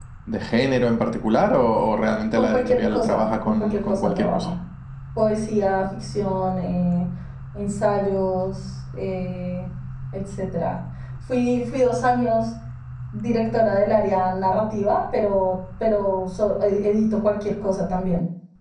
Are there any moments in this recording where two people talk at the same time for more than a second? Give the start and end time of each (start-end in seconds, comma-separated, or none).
2.4-4.5